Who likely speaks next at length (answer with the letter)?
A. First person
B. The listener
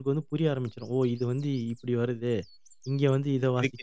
B